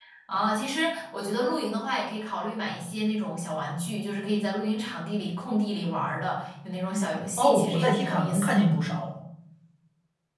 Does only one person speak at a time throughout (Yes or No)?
No